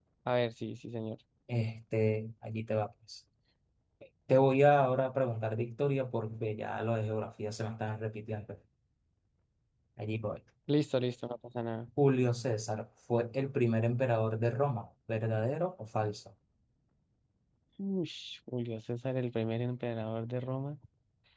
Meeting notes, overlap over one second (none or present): none